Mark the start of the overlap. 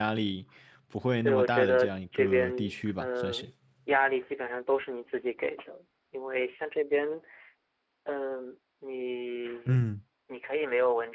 1 s

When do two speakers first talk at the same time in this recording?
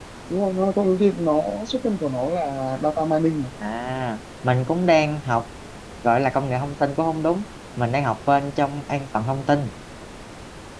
none

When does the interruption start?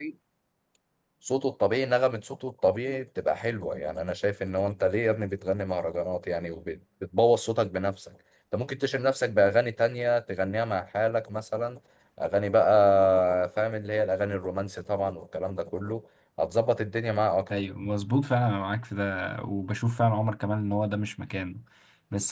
none

